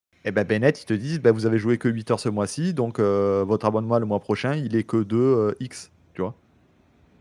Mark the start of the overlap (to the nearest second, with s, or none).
none